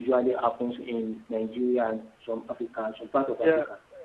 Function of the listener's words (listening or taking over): taking over